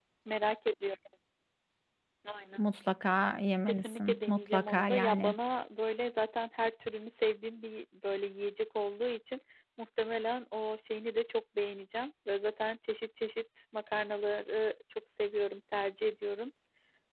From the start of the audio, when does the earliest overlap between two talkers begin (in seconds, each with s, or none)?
3.7 s